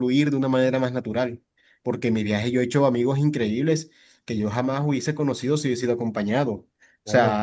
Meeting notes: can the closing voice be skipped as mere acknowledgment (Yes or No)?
Yes